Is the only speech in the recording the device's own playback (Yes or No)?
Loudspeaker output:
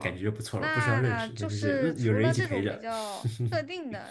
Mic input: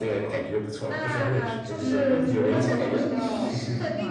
No